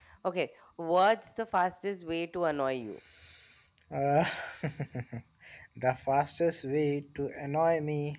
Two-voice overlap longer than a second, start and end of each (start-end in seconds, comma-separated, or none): none